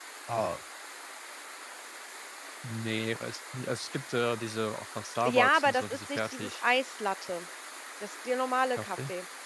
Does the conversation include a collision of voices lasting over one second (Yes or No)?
Yes